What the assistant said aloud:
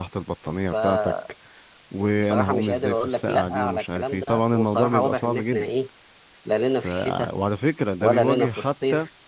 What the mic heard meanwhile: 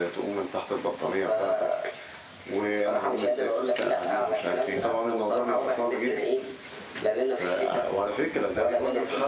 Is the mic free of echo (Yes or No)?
No